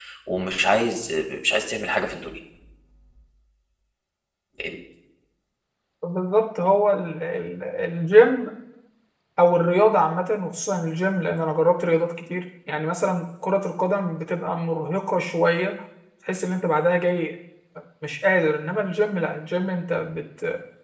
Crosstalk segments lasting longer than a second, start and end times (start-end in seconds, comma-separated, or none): none